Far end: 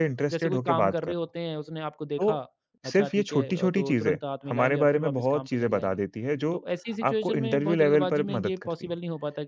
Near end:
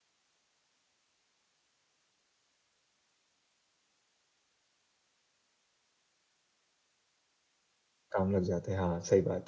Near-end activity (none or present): present